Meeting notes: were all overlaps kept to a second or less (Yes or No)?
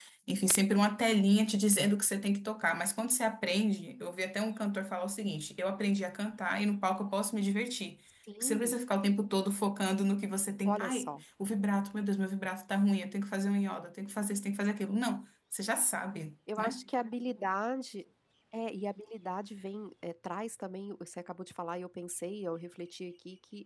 Yes